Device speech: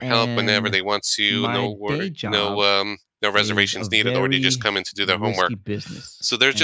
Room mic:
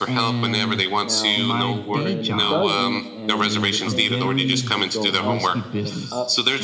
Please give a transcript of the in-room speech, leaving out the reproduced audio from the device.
Now, when it doesn't and uh, the thing continues to go up and up

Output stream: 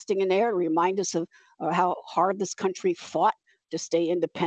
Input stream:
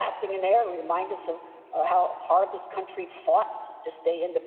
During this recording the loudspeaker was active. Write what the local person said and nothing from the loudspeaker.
none

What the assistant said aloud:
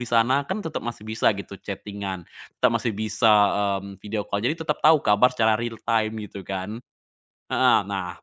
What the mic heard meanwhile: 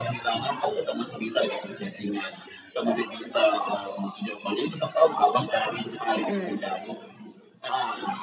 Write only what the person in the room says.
mhm

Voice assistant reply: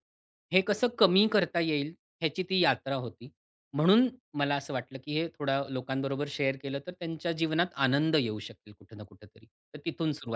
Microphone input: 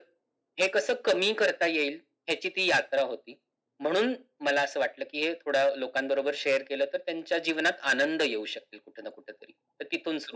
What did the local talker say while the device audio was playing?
none

